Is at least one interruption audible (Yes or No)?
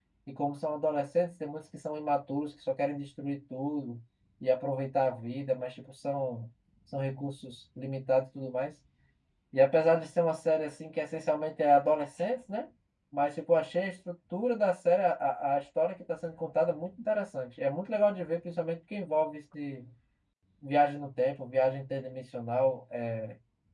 No